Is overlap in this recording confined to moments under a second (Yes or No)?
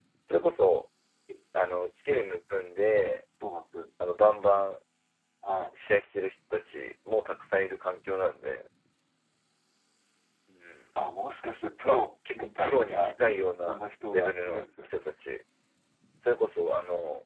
No